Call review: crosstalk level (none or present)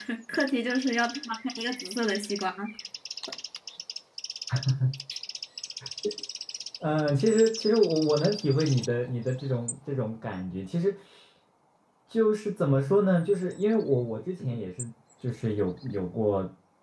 none